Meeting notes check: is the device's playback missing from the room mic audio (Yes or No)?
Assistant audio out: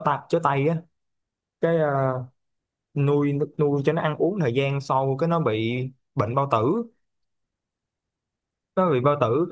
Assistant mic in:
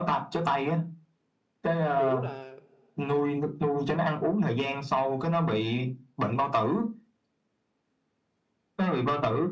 No